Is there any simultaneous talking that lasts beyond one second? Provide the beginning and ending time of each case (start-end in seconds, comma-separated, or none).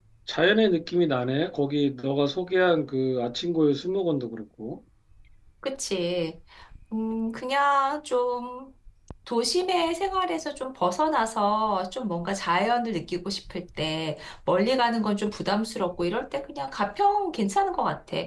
none